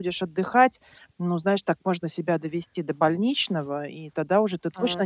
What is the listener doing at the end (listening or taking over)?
listening